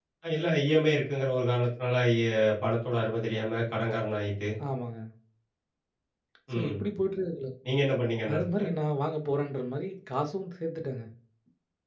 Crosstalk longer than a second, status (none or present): none